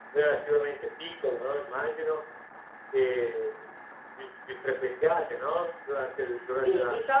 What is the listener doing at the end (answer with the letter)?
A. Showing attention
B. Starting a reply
B